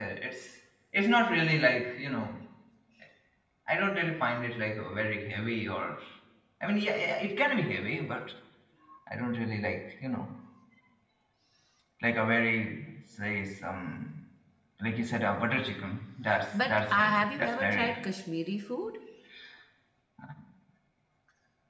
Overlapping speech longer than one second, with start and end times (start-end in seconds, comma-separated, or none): 16.6-18.1